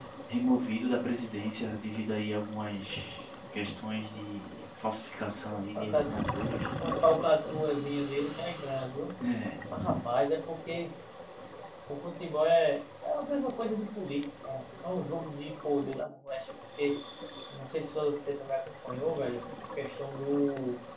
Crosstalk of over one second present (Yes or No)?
No